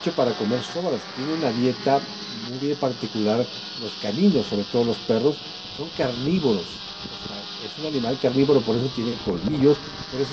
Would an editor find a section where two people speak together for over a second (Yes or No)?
No